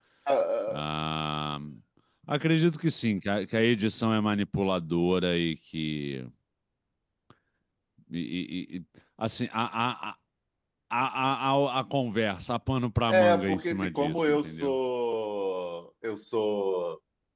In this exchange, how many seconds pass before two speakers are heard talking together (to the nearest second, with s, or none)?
13 s